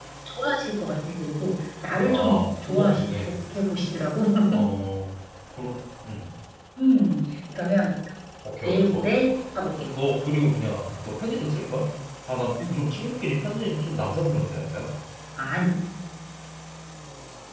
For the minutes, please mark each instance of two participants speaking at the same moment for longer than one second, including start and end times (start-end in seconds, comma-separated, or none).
2.0-3.3